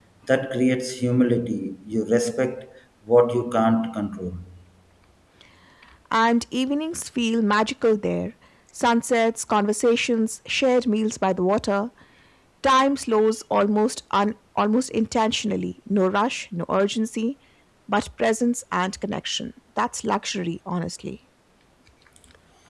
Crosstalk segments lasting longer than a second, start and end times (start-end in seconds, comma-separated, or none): none